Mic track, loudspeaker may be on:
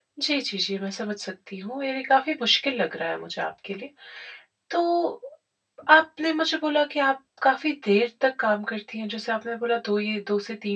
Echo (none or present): none